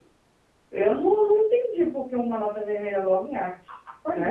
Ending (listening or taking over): taking over